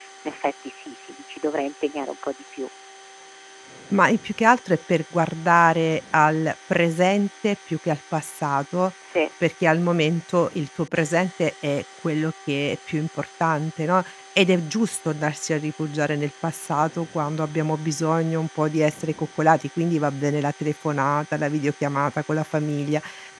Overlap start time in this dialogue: none

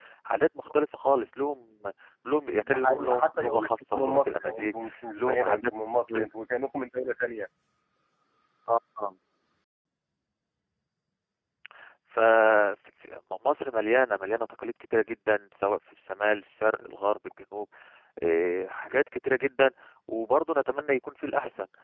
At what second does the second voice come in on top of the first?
3 s

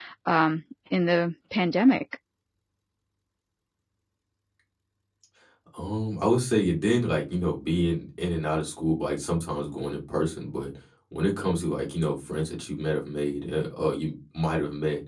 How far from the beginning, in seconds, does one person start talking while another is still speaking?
none

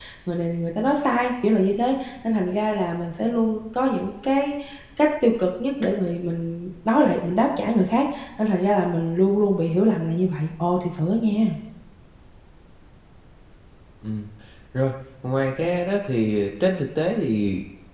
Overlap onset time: none

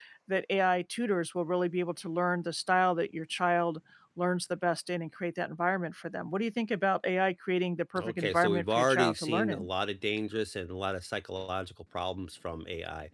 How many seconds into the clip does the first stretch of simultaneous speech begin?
8 s

